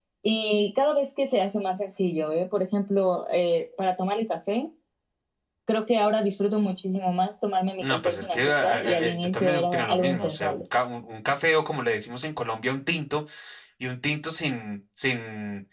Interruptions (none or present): present